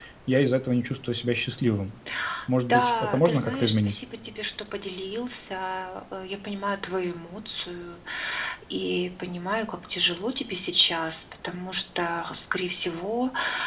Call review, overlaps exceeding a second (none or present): present